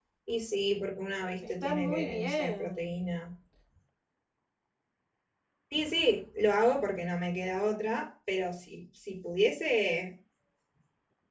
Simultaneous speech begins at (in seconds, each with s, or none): 1.6 s